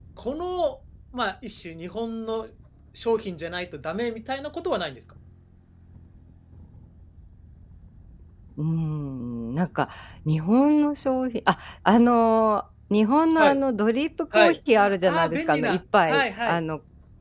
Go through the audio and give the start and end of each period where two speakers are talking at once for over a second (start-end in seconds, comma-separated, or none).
14.3-16.6